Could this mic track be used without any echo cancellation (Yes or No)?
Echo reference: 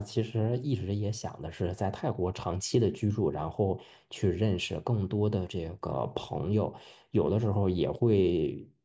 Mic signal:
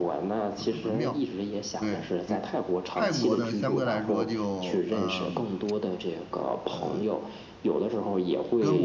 No